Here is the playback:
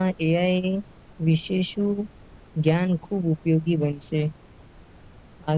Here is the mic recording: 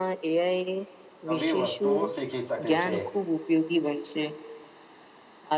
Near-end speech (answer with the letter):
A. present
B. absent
A